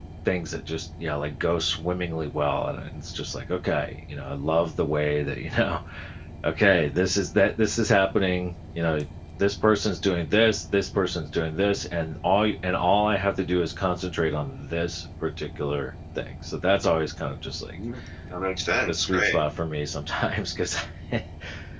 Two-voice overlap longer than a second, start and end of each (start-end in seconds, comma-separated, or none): none